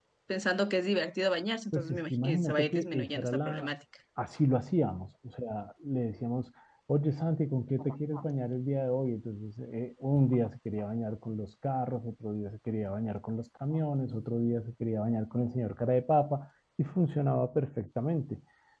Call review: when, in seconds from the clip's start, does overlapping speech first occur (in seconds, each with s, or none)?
1.7 s